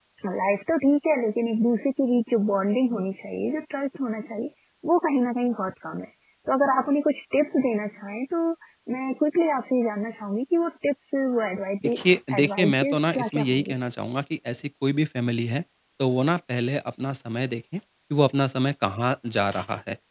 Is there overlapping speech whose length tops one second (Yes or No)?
Yes